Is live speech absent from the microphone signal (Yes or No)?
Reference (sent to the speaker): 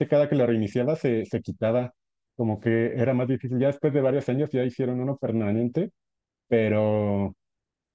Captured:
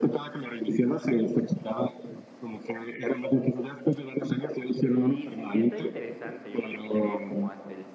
No